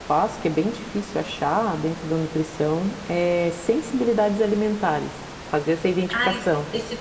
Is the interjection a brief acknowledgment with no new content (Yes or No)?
No